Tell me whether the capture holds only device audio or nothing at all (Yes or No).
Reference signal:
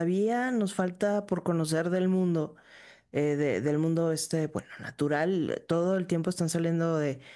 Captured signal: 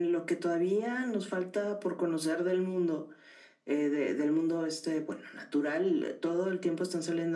Yes